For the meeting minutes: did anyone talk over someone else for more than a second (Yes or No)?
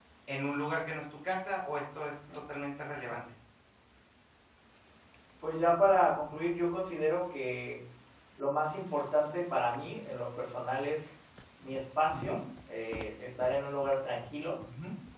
No